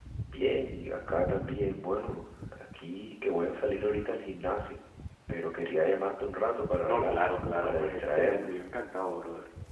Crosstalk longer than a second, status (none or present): present